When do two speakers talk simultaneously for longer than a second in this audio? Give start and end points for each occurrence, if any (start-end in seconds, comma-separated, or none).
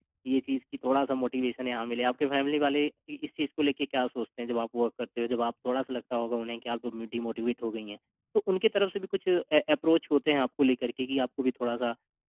none